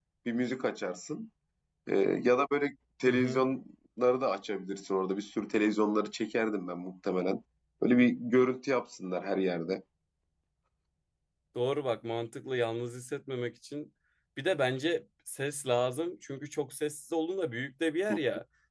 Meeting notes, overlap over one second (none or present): none